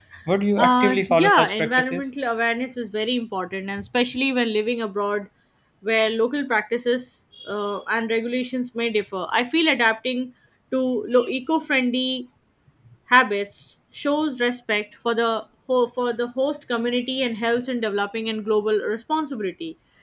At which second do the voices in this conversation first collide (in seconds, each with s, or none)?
0.6 s